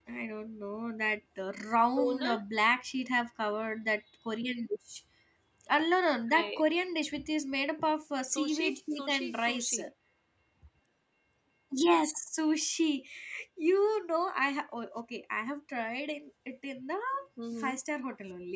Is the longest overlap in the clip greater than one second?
Yes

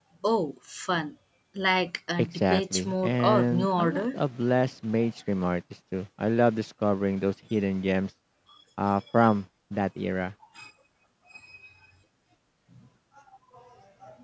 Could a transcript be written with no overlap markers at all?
No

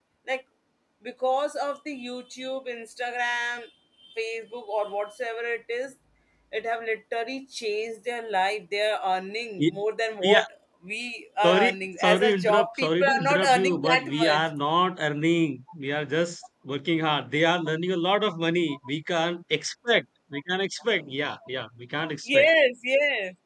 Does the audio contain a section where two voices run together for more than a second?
Yes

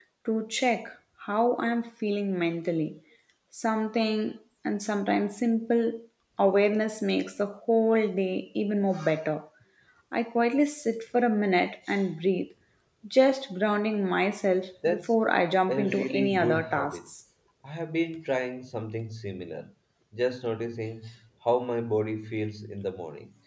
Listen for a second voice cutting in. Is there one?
Yes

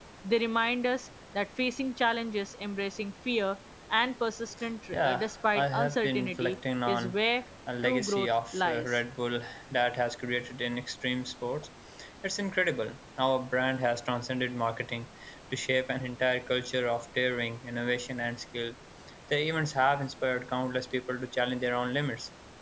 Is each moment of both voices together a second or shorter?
No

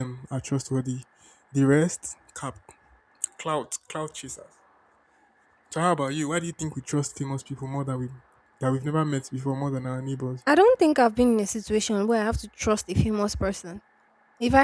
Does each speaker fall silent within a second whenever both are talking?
Yes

